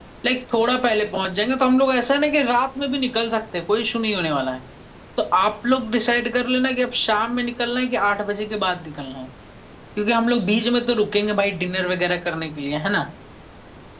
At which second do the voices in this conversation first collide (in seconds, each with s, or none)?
none